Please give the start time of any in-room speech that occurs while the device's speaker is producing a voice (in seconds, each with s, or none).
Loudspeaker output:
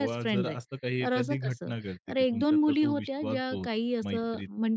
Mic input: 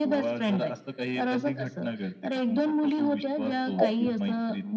3.8 s